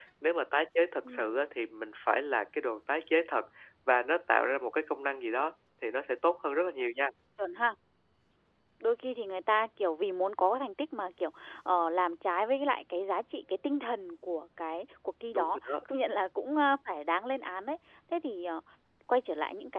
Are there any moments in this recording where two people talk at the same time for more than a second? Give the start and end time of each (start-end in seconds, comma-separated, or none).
none